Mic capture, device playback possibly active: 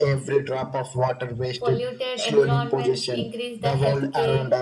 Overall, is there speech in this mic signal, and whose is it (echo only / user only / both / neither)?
both